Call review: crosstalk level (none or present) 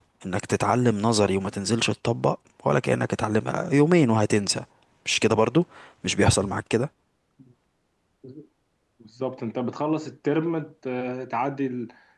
none